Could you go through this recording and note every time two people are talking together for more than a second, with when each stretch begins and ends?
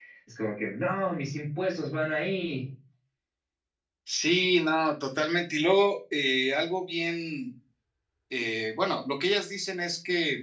none

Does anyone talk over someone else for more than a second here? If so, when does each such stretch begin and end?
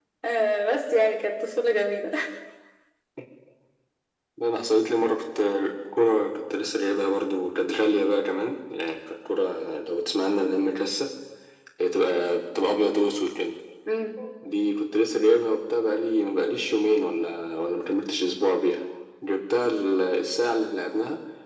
none

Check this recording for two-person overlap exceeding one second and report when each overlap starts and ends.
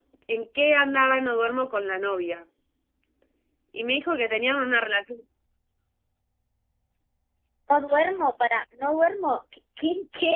none

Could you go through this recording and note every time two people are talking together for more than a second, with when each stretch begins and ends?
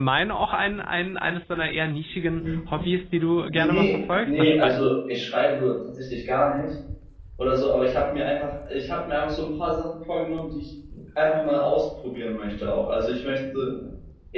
3.5-4.9

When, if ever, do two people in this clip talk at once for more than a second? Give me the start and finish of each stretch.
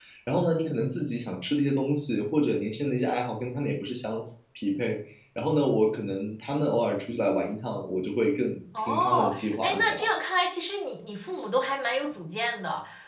8.8-10.1

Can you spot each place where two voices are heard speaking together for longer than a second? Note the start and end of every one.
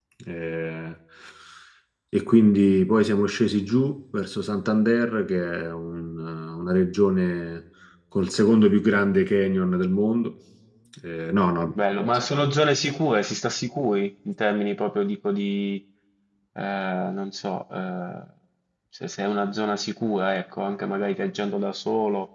none

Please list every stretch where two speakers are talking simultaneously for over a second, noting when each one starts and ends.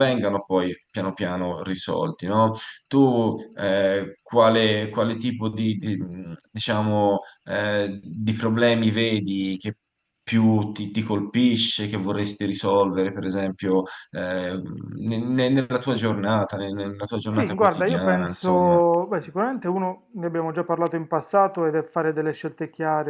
17.3-18.8

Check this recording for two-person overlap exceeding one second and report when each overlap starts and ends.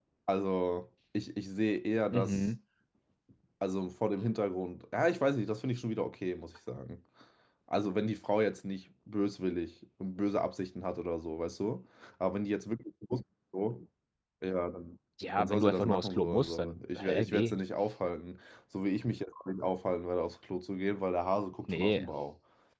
15.4-17.5

